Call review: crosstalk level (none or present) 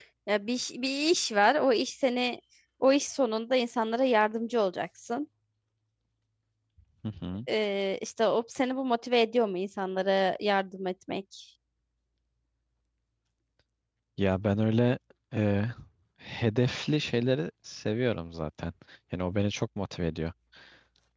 none